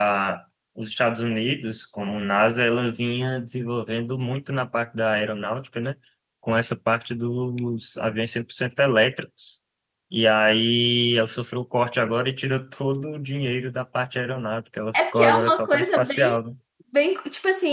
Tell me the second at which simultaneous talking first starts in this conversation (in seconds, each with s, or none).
14.9 s